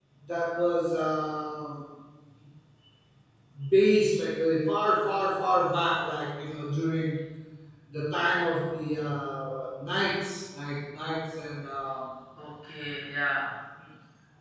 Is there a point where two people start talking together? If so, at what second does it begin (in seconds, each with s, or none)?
none